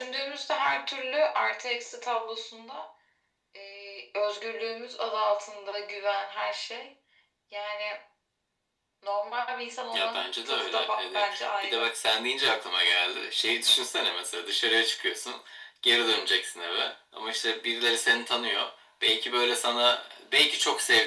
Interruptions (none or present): present